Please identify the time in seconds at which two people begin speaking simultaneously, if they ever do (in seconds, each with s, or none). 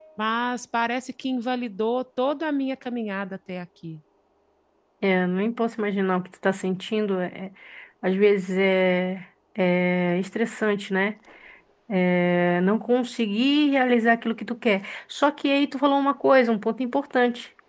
none